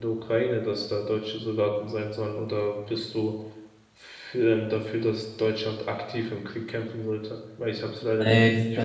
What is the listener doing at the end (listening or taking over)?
taking over